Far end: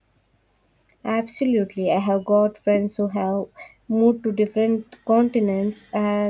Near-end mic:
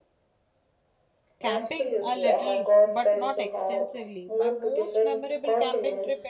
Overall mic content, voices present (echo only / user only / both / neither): both